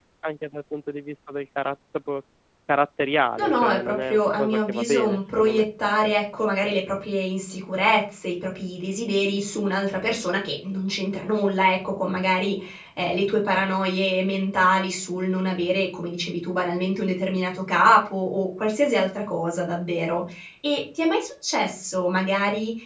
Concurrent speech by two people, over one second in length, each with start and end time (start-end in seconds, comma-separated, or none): 3.4-5.6